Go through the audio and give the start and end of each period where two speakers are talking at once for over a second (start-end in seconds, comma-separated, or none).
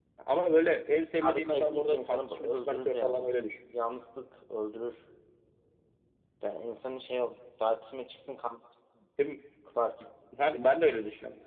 1.2-3.3